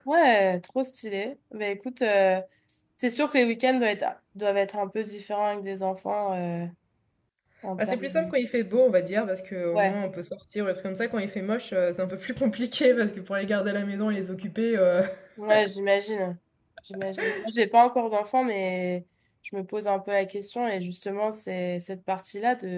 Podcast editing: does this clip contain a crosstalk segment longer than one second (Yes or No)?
No